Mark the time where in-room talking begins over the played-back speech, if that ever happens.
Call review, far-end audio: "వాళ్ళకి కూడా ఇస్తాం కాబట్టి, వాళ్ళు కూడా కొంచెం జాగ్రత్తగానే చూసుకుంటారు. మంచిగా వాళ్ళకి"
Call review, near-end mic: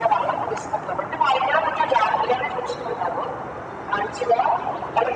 none

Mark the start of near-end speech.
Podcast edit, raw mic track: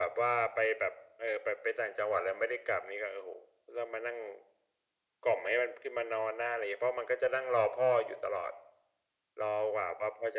none

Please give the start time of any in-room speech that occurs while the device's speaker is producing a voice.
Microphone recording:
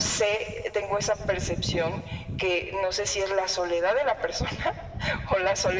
none

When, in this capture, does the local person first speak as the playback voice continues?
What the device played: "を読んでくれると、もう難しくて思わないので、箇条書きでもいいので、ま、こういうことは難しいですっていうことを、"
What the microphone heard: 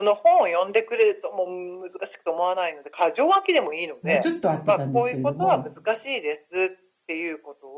4 s

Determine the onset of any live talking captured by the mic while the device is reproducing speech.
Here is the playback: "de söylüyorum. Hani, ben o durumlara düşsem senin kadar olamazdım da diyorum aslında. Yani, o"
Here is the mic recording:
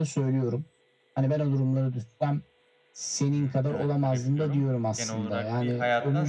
3 s

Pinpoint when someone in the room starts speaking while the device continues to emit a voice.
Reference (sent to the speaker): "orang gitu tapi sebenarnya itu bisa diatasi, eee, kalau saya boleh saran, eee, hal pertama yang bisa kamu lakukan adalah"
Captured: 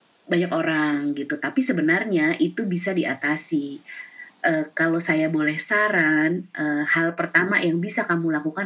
none

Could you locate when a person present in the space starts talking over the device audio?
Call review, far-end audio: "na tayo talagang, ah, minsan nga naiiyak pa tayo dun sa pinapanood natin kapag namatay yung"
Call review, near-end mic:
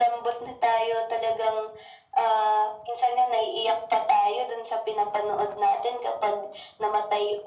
none

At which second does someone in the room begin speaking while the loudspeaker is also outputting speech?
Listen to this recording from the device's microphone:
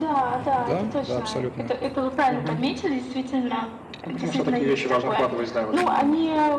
1 s

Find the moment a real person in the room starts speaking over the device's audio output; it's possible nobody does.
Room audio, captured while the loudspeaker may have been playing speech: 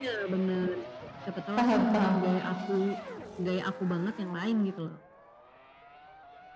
2 s

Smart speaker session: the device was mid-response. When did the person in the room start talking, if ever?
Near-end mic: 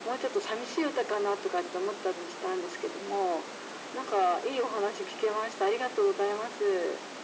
none

